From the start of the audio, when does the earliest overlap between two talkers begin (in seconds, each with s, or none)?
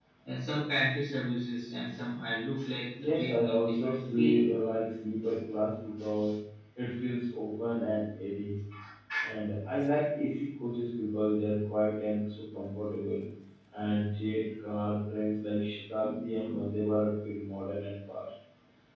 3.0 s